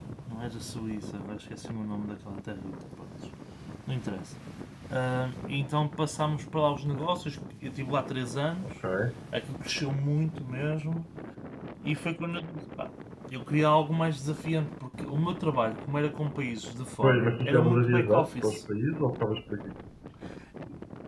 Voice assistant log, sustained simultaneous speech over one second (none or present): present